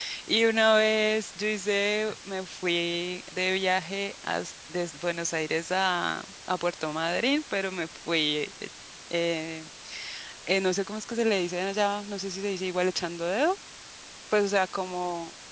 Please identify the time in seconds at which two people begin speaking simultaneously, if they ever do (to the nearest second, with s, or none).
none